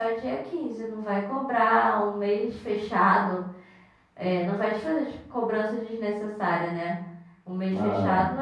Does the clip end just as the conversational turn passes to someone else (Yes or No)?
No